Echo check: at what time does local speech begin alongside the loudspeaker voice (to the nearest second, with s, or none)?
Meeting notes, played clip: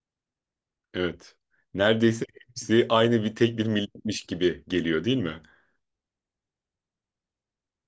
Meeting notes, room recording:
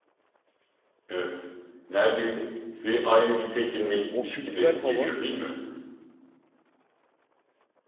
4 s